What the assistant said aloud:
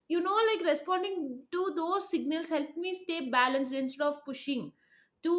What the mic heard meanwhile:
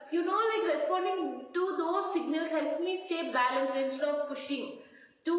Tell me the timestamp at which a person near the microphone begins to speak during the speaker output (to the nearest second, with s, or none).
none